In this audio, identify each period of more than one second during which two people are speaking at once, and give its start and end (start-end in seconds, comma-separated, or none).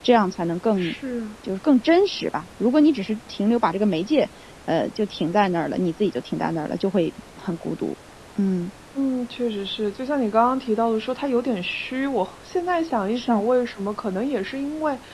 none